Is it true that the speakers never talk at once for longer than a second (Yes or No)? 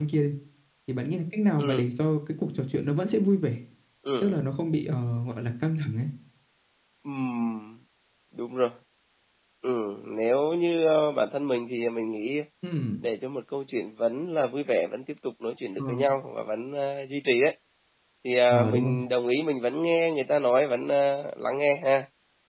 Yes